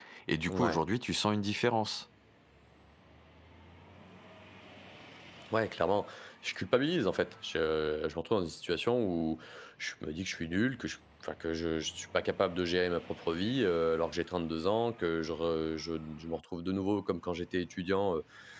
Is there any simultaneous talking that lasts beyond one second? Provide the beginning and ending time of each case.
none

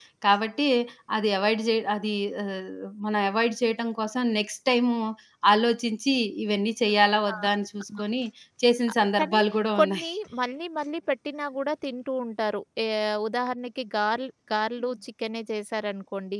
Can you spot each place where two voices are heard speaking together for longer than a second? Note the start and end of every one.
none

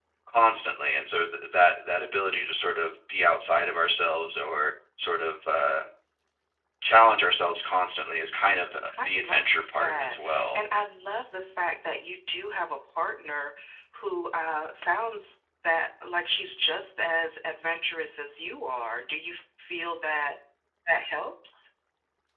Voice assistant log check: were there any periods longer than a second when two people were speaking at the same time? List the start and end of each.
9.0-10.6

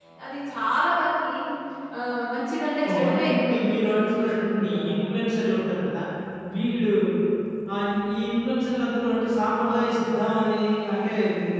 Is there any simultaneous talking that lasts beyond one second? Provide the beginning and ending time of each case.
2.9-5.0

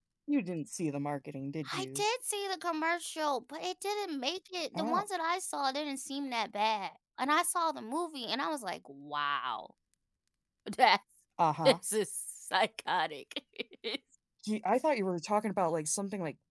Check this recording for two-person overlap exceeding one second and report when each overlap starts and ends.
none

